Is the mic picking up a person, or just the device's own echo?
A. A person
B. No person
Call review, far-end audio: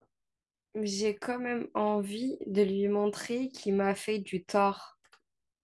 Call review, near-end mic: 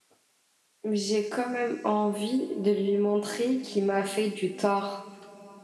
B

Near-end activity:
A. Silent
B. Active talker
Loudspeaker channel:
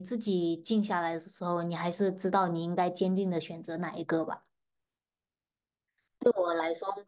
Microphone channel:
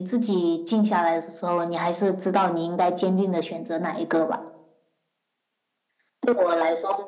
A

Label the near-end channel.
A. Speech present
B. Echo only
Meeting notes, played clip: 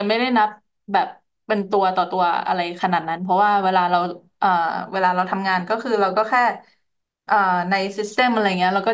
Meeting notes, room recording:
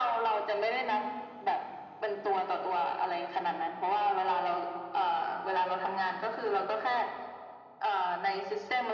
B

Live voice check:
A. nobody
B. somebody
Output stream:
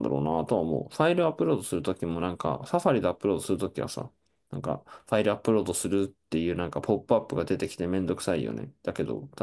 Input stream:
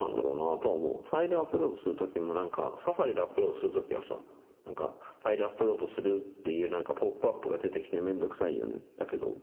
A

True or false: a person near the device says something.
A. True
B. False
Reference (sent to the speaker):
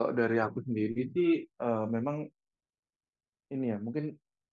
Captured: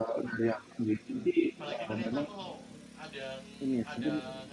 A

